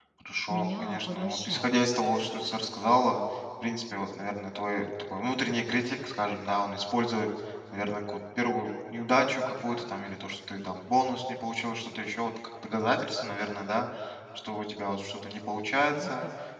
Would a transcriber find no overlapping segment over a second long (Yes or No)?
No